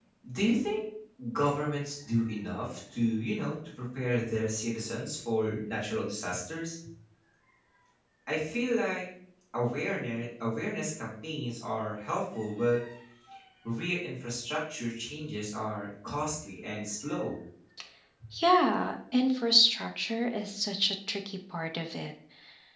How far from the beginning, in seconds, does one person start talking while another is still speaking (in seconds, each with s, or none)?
none